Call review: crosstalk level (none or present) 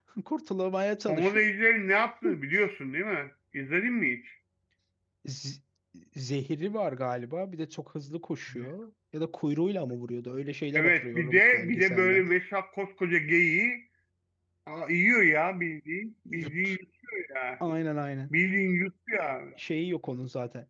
present